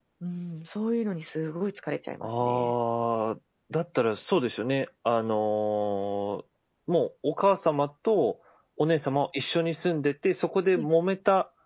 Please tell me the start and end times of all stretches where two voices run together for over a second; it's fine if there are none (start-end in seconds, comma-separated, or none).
none